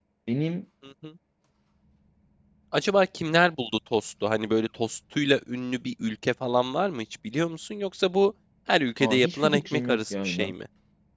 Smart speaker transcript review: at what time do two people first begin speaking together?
9.0 s

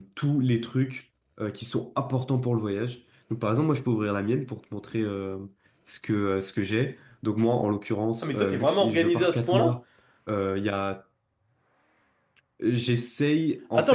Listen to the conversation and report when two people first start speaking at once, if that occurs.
8.2 s

